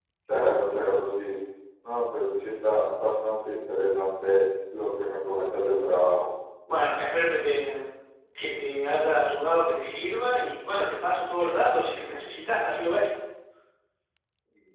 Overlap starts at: none

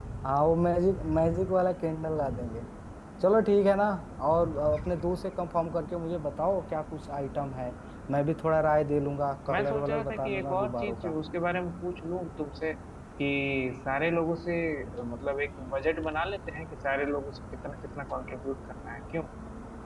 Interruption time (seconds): 9.5 s

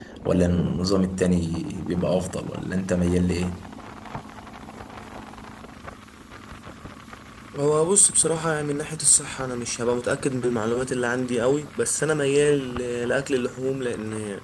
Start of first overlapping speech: none

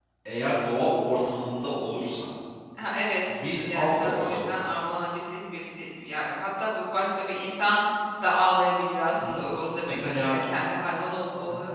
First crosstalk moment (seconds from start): 3.3 s

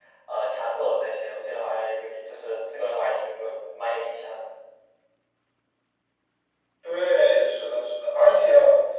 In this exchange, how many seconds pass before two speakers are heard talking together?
none

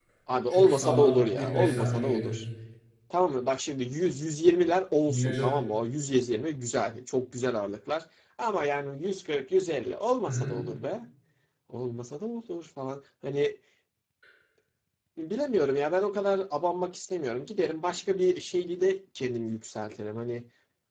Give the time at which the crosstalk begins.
0.5 s

